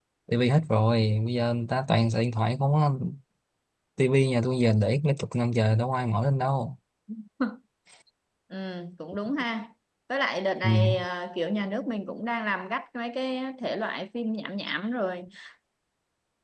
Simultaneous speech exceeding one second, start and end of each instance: none

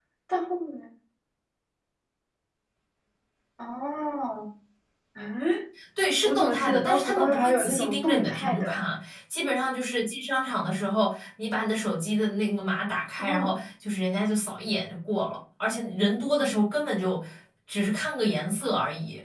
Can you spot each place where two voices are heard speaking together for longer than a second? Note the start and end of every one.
6.2-8.8

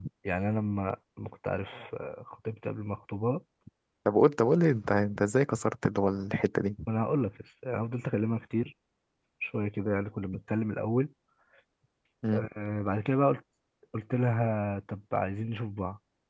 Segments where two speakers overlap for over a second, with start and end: none

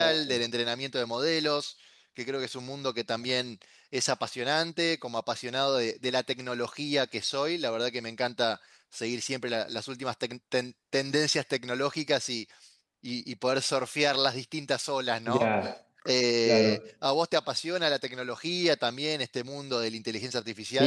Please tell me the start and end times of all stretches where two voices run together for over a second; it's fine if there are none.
none

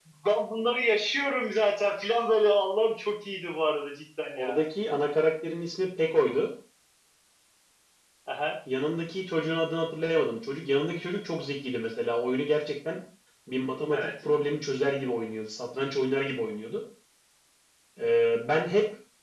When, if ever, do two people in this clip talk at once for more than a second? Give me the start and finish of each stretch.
none

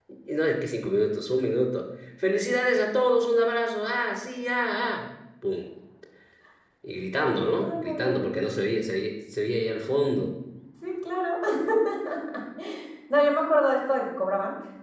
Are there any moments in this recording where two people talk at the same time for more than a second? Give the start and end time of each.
7.2-8.4

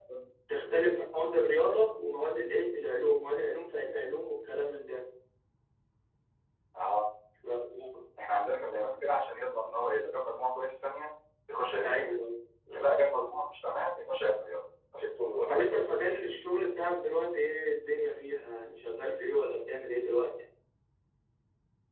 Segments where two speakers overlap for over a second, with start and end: none

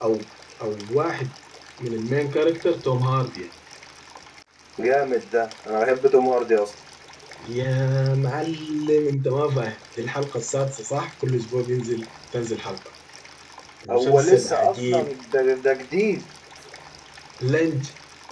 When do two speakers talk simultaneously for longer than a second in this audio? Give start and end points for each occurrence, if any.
13.9-15.1

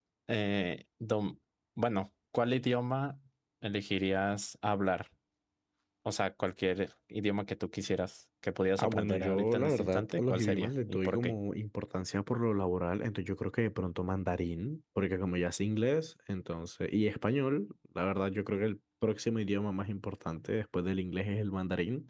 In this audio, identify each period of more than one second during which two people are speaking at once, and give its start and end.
8.8-11.3

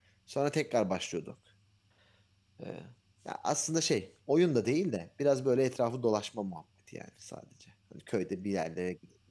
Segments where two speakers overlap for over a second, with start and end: none

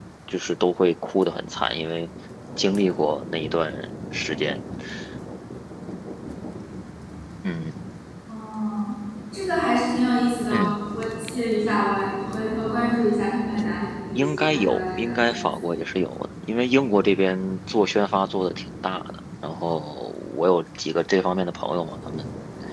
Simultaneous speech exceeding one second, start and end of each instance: 14.1-15.6

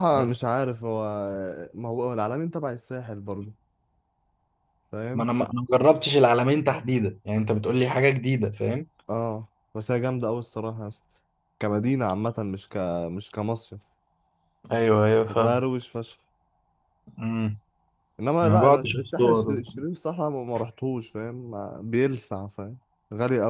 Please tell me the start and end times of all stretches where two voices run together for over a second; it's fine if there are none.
18.4-19.6

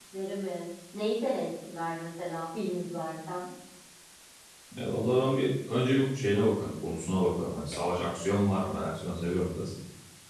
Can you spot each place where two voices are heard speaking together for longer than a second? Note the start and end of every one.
none

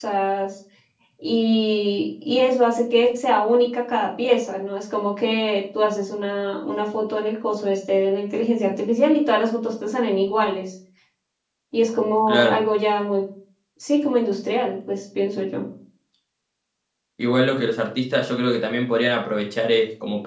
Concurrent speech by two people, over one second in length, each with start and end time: none

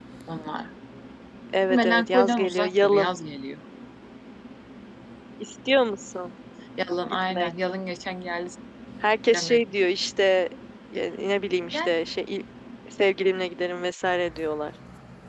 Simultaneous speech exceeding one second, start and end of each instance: 1.8-3.1

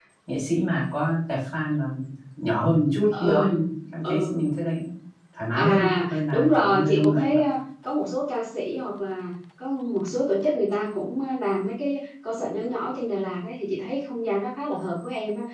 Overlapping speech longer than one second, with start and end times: 5.6-7.4

